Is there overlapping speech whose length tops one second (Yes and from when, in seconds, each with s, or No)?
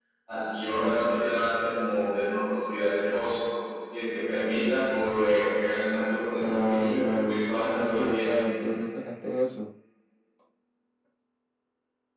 Yes, from 6.4 s